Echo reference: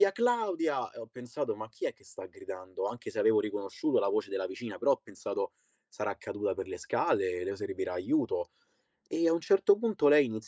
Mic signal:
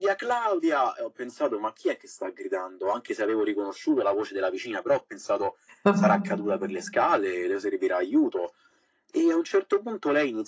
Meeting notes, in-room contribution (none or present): present